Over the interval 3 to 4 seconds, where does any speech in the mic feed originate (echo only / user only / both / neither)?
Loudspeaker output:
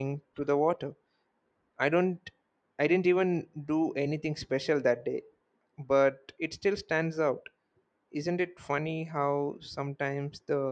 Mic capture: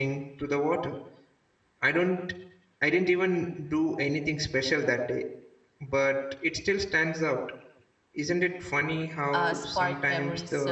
echo only